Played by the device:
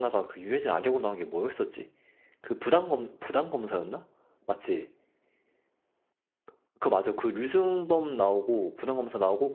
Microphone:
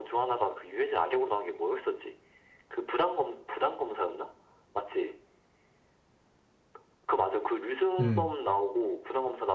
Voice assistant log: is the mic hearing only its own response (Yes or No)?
No